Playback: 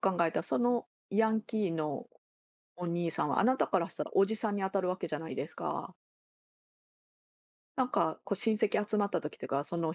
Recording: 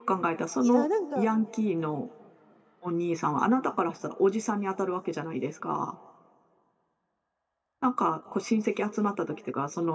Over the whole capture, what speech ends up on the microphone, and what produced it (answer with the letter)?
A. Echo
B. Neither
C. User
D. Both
D